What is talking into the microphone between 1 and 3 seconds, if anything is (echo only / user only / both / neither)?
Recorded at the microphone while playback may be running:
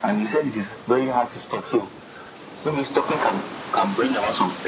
echo only